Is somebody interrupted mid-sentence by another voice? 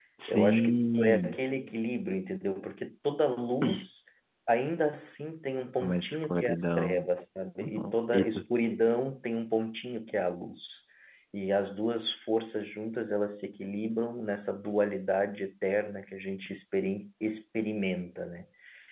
Yes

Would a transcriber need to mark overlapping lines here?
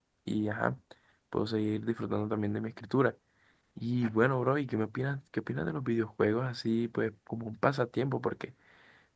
No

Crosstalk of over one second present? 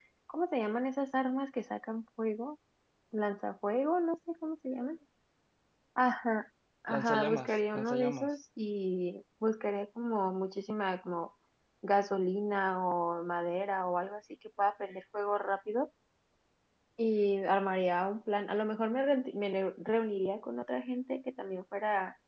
Yes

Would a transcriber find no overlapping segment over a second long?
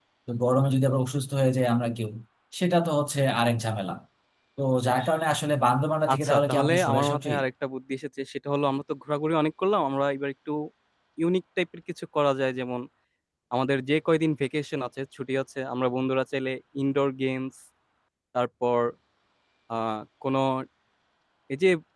No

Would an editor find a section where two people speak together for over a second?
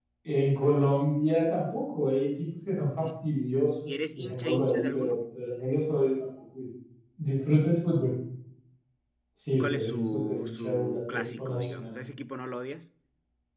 Yes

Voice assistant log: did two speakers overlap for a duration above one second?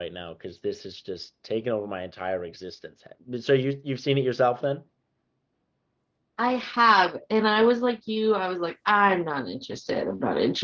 No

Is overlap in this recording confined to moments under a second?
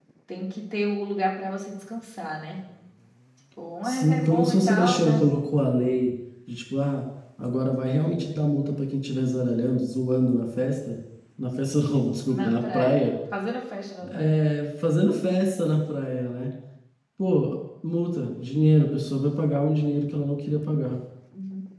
No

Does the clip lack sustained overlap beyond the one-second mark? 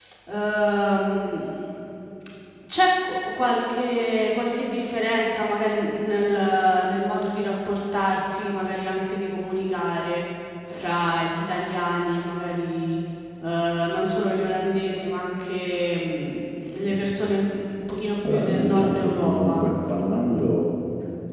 No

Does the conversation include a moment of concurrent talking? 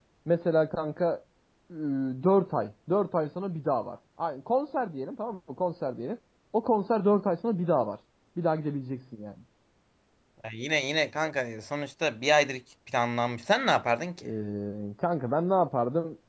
No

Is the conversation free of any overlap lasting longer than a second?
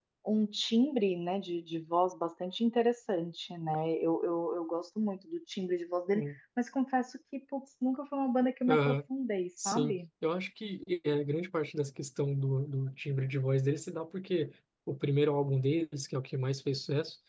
Yes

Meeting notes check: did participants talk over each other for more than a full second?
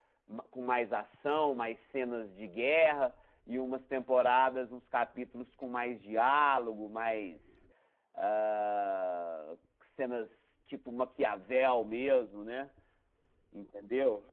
No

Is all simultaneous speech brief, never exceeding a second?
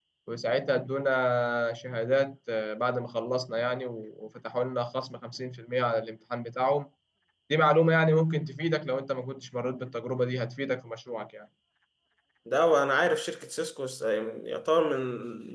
Yes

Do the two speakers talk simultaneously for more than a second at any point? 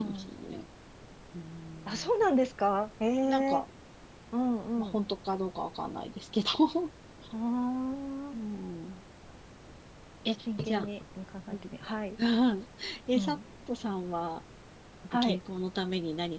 No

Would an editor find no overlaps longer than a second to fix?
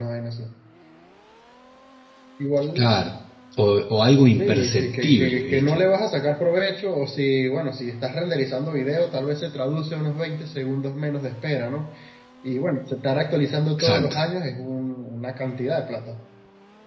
No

